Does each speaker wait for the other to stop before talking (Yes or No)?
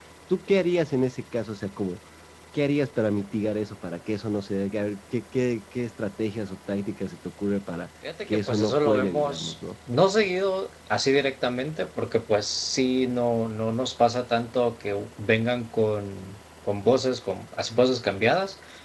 No